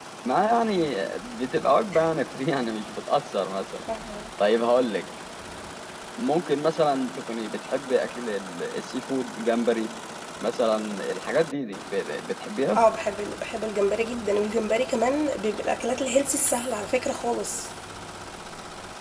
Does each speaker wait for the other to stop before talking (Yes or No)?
Yes